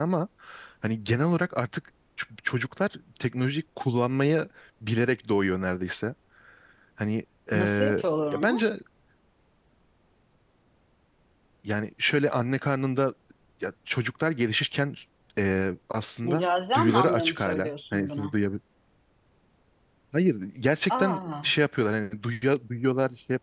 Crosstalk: present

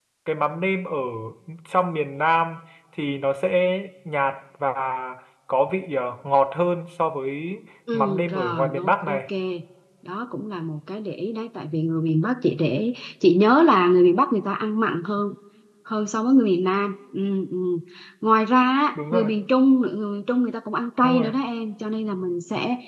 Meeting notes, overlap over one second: present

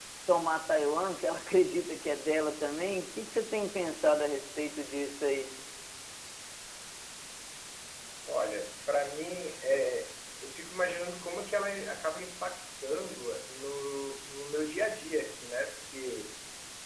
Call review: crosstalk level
none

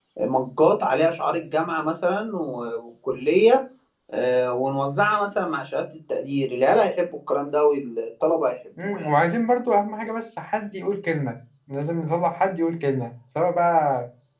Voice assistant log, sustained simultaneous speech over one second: none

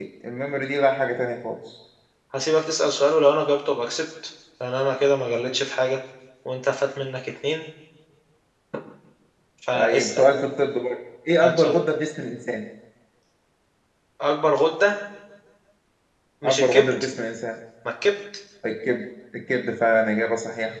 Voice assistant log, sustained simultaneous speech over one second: none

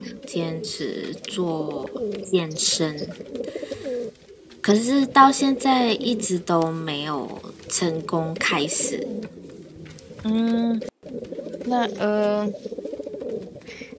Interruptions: none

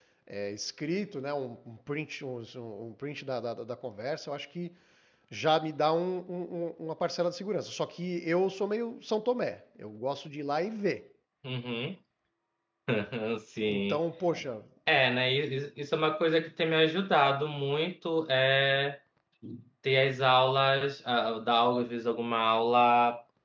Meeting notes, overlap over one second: none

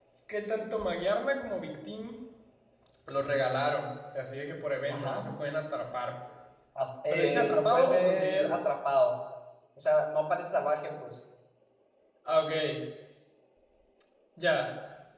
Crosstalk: present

